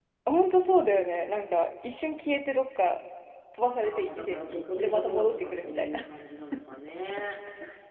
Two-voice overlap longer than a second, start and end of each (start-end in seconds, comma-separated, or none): 3.8-6.0